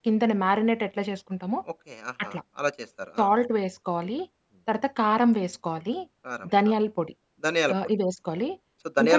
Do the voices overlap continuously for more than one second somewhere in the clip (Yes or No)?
No